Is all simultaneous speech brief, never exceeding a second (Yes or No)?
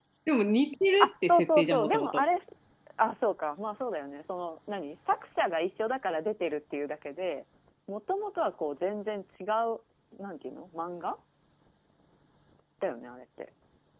No